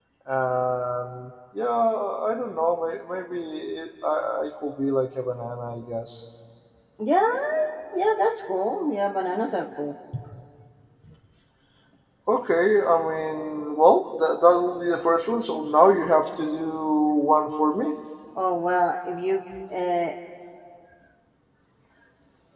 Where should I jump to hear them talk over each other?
none

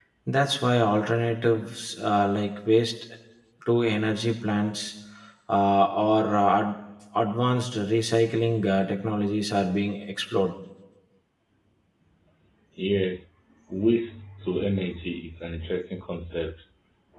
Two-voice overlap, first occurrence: none

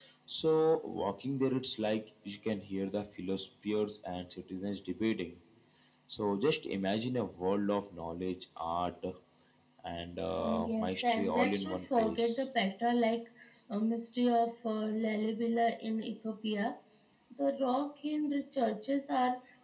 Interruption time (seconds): 10.4 s

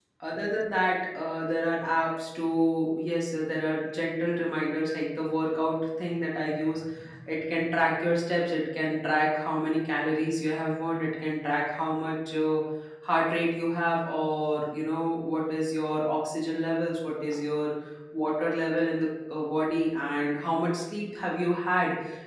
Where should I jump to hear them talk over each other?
none

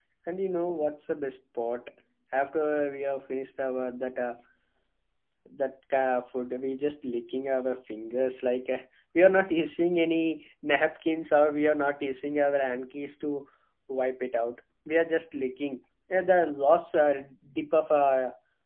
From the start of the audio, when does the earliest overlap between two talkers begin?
none

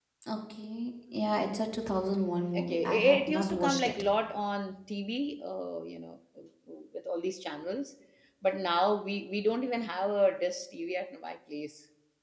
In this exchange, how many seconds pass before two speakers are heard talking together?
2.6 s

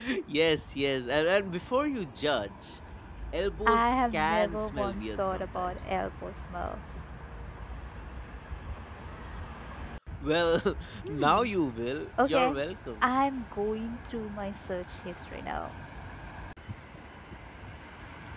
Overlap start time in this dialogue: 3.6 s

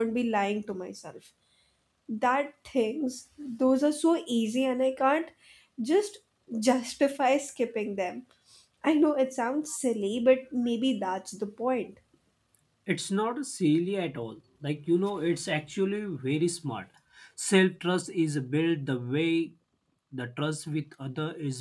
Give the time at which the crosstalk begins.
none

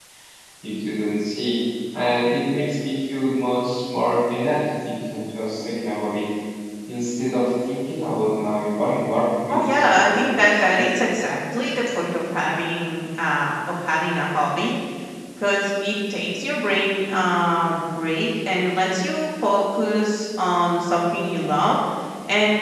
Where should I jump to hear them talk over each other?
9.5 s

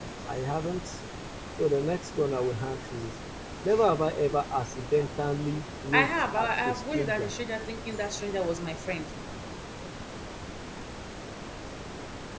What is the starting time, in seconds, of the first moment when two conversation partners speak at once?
5.9 s

